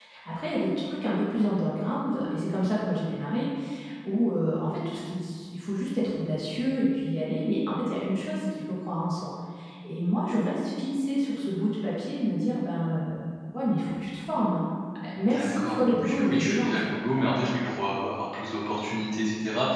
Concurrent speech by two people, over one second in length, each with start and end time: 15.2-16.9

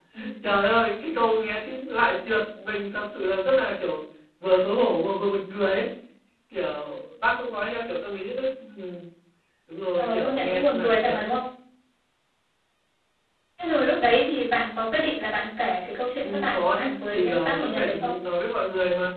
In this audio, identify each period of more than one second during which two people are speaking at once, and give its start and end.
10.0-11.2, 16.2-18.1

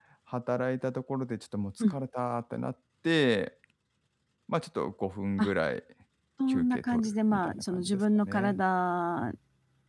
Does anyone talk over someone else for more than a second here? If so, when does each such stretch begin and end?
6.5-8.6

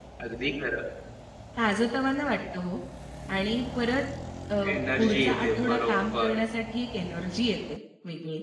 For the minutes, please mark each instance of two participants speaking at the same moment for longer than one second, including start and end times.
5.0-6.4

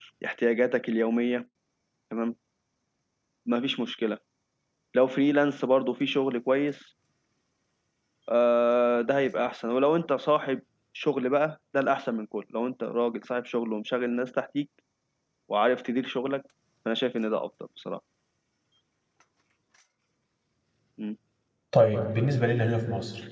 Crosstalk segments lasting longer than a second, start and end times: none

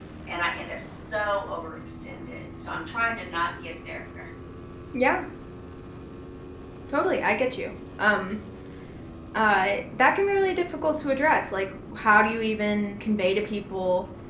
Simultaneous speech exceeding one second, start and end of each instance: none

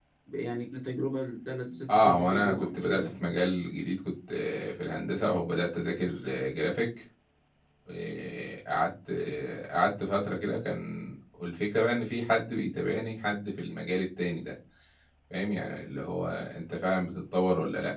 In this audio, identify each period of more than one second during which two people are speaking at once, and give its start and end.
1.9-3.1

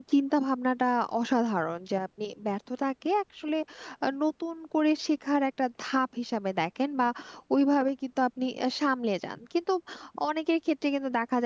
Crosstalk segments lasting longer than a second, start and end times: none

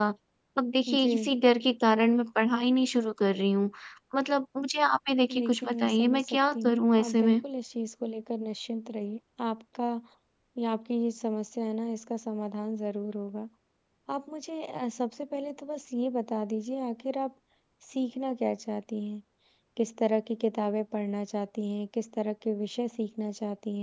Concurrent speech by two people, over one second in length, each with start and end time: 5.4-7.4

